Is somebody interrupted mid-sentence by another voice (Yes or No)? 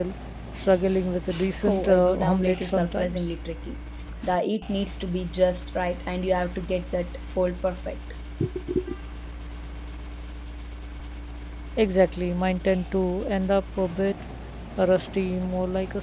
Yes